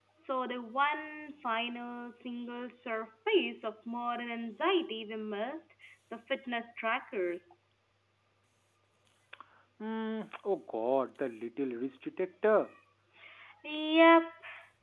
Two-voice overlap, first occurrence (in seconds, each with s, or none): none